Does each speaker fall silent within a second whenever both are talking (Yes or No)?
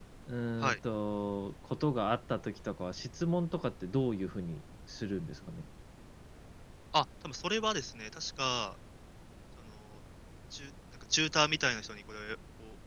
Yes